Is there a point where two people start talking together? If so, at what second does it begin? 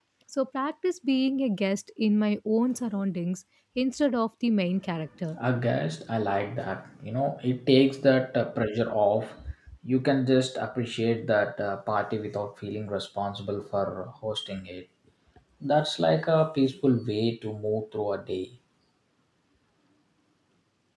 none

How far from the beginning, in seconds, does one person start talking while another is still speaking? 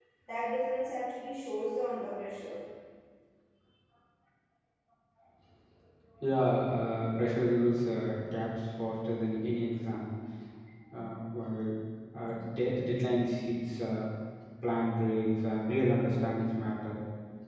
none

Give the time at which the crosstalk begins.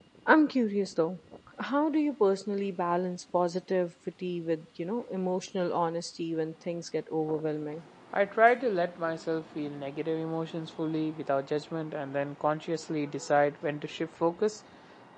none

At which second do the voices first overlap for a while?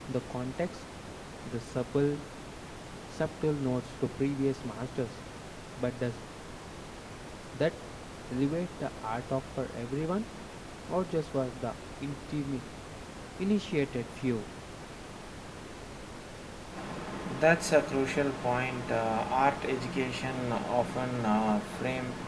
none

